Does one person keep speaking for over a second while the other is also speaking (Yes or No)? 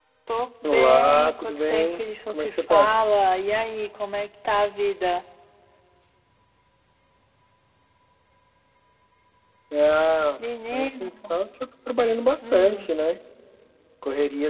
Yes